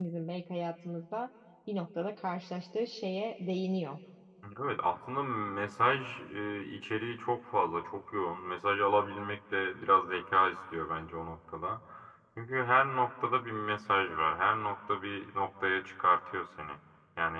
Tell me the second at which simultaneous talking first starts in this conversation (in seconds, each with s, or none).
none